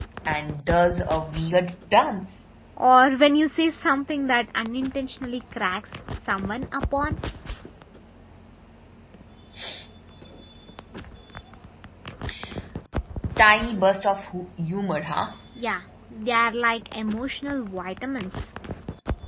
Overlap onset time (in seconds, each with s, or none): none